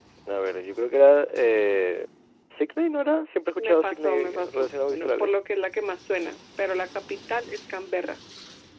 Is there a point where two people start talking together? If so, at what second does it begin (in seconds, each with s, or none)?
3.6 s